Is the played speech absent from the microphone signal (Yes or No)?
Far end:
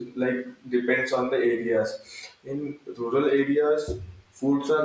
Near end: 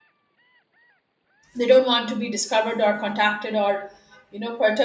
Yes